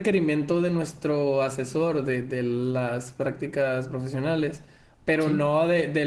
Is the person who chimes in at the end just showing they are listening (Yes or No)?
Yes